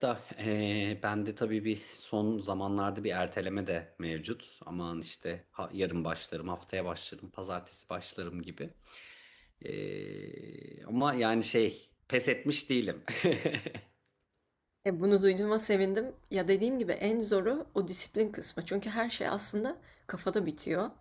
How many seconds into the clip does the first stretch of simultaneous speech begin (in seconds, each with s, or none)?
none